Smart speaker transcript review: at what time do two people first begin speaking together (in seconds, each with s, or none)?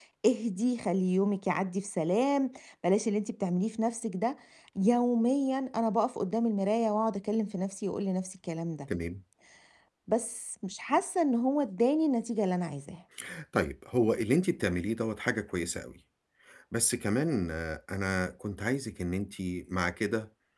none